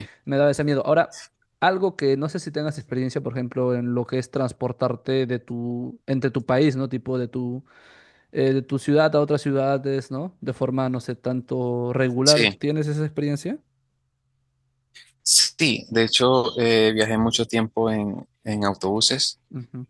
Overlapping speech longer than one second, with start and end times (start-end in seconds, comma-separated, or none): none